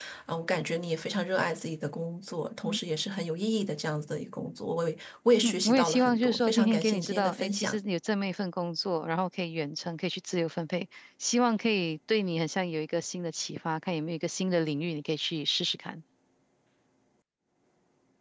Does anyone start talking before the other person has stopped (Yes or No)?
Yes